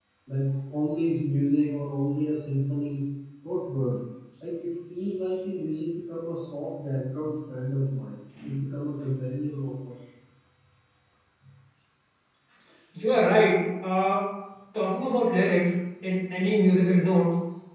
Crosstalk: none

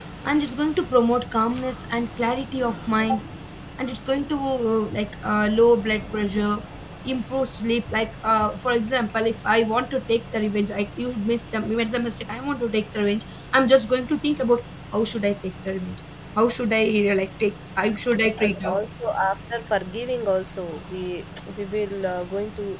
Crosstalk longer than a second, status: none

